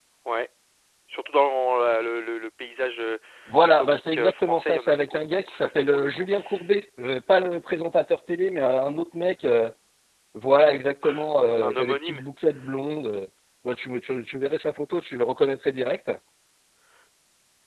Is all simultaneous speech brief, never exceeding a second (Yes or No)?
No